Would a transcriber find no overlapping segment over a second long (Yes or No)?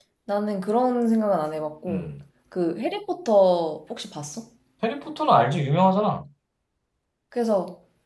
Yes